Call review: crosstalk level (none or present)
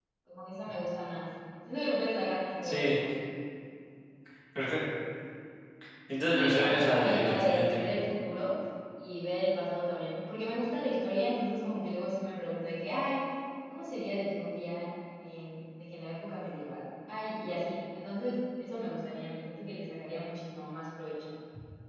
present